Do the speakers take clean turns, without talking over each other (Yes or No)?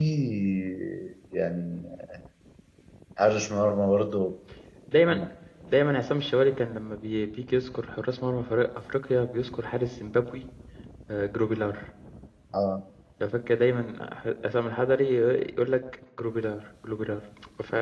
Yes